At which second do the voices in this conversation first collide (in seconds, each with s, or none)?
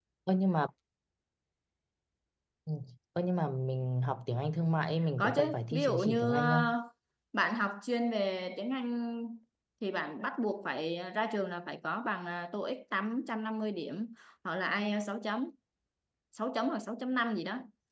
5.2 s